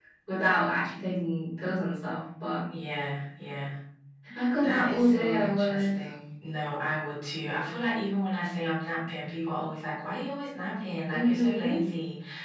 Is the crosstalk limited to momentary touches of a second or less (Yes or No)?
No